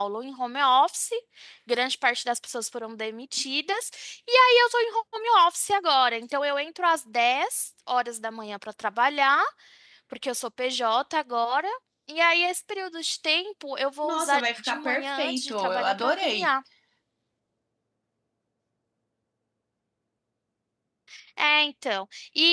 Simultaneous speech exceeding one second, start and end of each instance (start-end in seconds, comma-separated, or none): 14.0-16.5